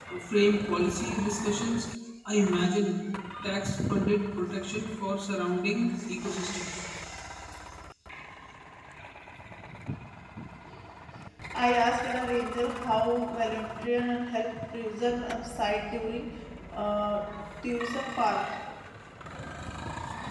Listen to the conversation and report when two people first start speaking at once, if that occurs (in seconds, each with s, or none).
none